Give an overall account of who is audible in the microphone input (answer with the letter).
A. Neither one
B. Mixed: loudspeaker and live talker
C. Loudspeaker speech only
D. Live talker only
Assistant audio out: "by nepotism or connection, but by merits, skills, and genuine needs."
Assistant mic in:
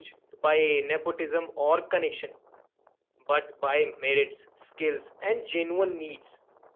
C